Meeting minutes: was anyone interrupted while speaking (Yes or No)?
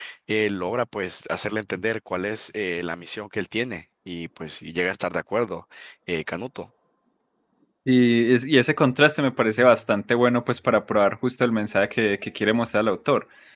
No